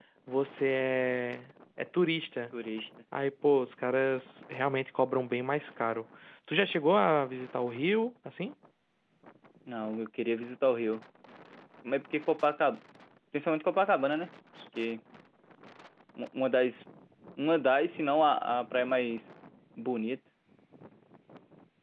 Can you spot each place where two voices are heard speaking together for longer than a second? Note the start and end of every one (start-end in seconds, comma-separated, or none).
none